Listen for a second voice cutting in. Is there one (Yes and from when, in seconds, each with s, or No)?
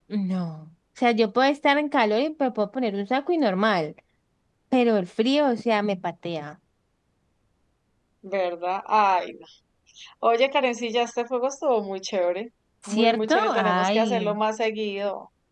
Yes, from 12.8 s